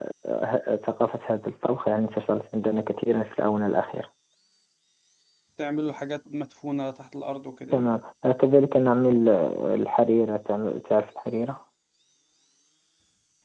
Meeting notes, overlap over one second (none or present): none